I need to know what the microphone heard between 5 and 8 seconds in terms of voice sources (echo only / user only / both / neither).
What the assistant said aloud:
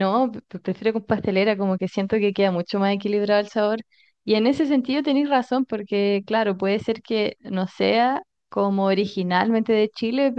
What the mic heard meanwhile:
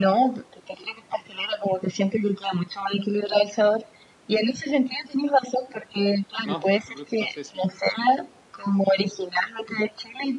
both